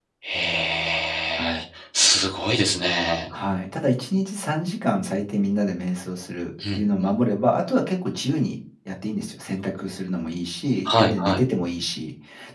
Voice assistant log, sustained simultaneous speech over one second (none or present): none